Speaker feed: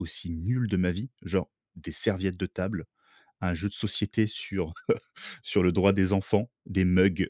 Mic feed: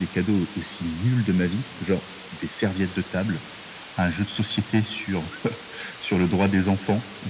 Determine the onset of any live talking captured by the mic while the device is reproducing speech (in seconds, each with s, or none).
none